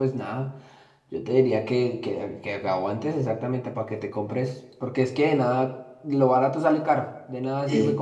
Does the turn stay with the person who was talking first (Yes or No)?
Yes